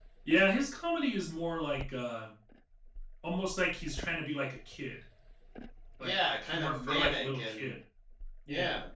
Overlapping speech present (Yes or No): Yes